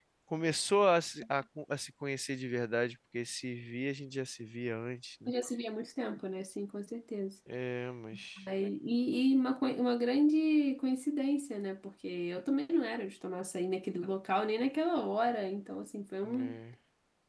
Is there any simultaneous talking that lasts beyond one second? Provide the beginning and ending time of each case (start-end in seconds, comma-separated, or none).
none